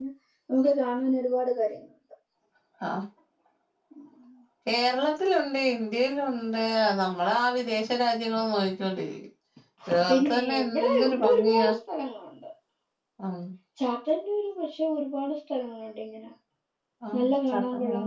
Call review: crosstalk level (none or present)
present